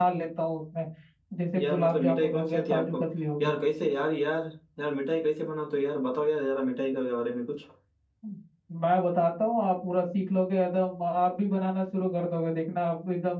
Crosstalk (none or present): present